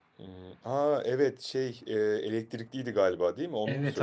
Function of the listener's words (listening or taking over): taking over